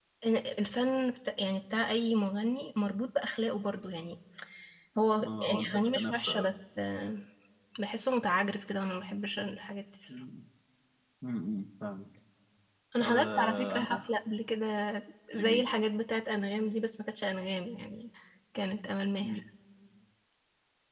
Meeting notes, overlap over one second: present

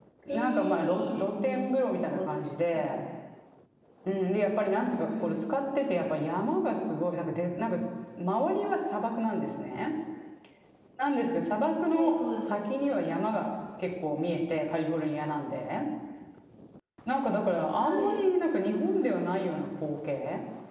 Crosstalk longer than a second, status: present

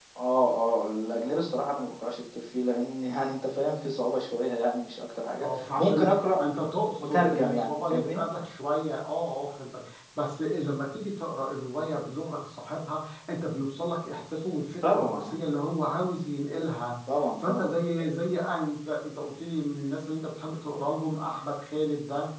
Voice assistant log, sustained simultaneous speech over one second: present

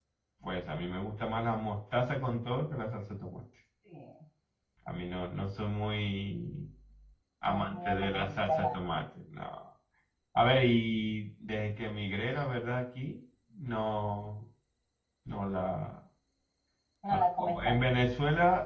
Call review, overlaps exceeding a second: present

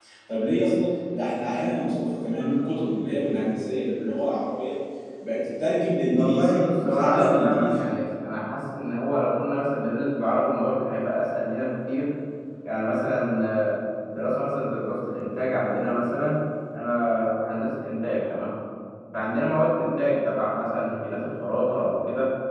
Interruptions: present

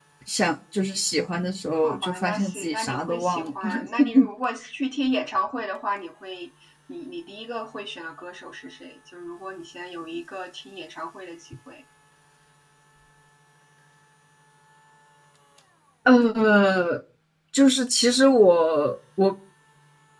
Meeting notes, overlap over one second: present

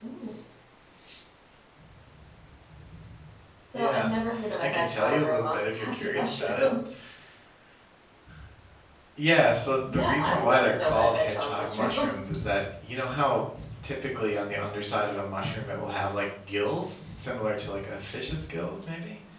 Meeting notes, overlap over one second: present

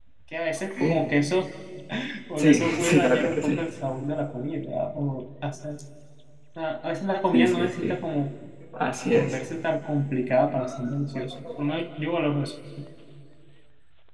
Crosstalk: present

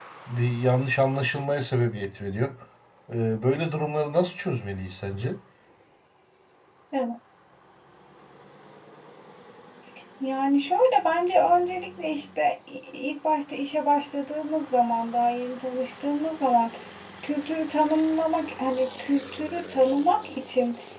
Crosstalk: none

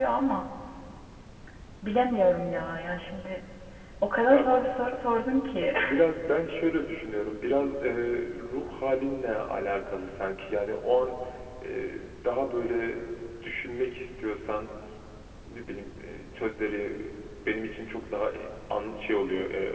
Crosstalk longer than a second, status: none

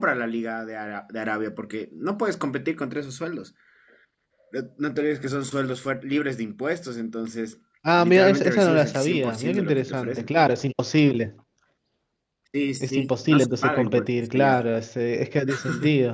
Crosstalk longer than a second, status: present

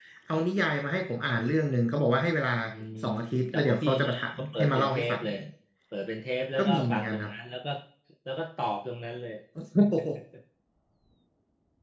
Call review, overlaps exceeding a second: present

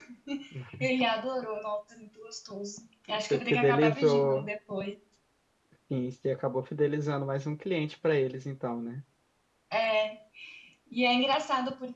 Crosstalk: present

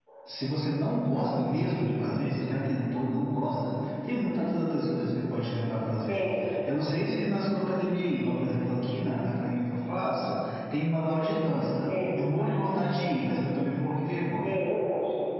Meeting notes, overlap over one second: none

